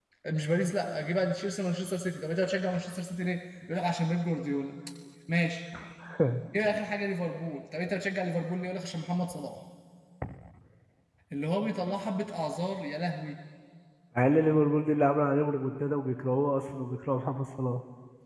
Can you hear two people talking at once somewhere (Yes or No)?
No